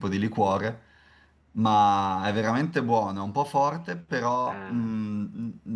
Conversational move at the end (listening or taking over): listening